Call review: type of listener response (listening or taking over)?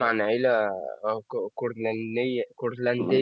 taking over